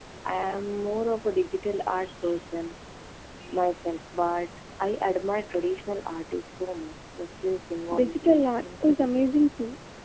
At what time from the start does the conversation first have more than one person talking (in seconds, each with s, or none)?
7.9 s